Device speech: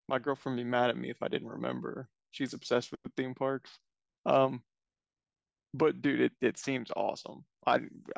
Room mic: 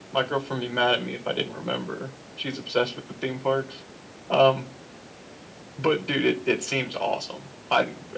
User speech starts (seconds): none

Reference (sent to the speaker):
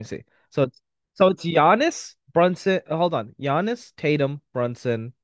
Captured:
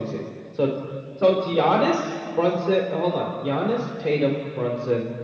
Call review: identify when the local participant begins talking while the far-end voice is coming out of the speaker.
none

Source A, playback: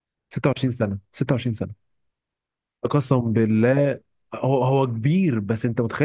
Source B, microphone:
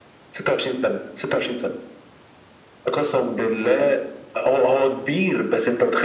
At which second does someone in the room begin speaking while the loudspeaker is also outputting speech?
none

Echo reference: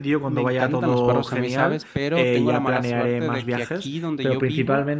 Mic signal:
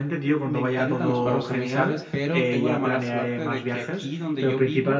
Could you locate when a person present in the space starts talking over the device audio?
none

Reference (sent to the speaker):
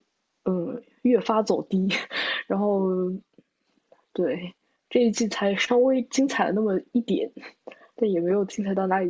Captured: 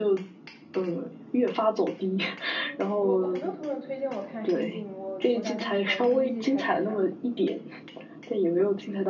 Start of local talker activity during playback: 2.5 s

